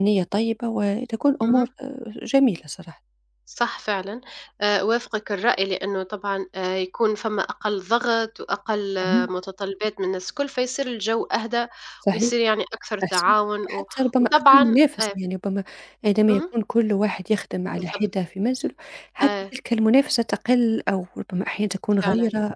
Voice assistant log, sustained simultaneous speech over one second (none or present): present